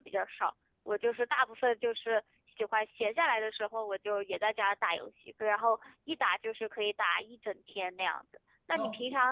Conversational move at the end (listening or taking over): listening